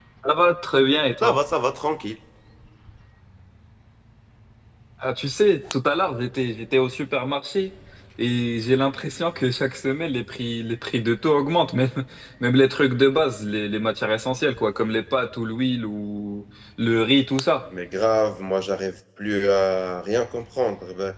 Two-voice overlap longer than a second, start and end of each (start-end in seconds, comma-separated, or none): none